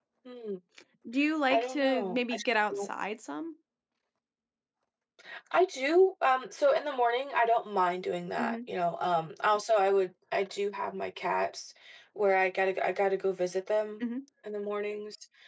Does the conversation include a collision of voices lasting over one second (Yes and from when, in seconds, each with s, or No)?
Yes, from 1.5 s